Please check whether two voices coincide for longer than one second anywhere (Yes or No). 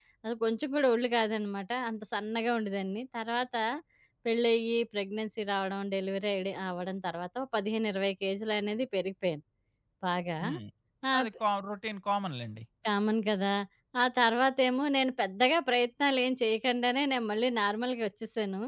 No